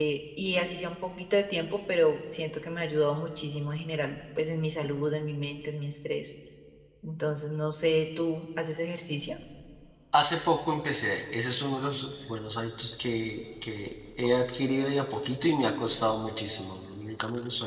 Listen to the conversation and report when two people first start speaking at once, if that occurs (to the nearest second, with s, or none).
none